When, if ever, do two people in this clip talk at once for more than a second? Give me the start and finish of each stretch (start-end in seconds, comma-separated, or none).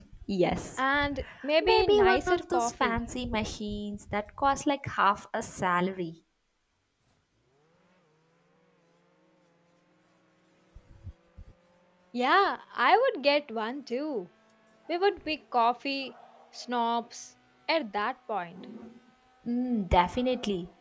1.6-3.0